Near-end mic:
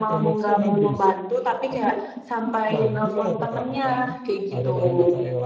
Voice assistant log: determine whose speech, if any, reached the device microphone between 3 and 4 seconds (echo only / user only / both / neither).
both